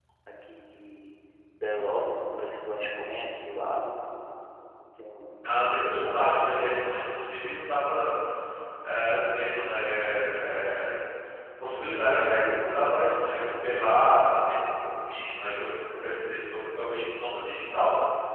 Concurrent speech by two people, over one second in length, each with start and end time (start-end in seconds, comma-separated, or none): none